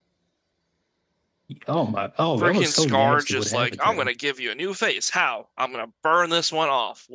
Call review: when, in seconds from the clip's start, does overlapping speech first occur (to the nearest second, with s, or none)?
2 s